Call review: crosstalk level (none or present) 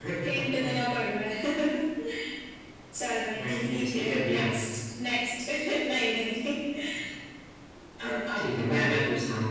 present